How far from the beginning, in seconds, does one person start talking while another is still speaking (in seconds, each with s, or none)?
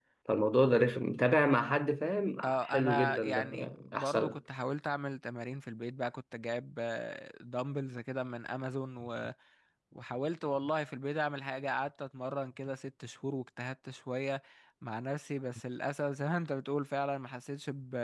2.4 s